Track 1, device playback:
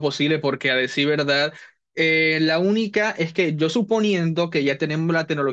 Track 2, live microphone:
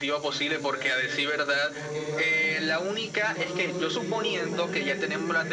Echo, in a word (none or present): present